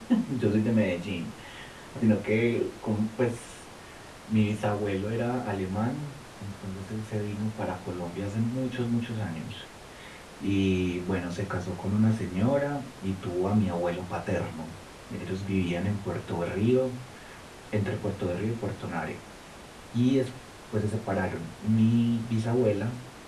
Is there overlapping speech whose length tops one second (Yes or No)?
No